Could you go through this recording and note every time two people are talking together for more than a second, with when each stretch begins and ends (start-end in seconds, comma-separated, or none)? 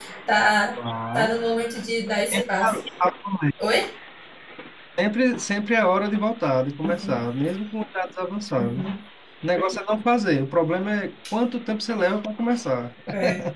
none